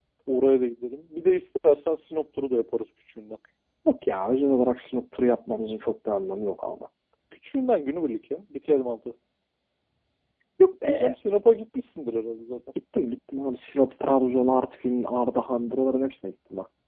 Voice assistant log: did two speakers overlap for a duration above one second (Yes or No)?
No